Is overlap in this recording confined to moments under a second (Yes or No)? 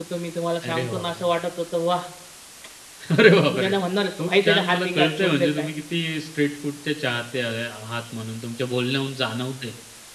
No